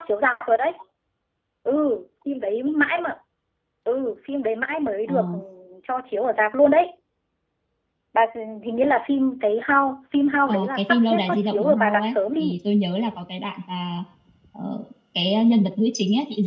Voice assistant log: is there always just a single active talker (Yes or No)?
No